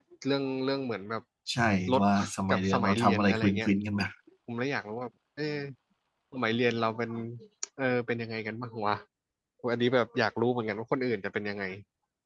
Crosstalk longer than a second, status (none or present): present